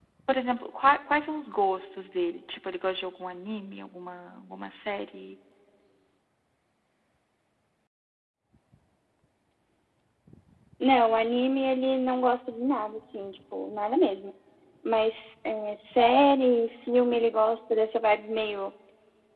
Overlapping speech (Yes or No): No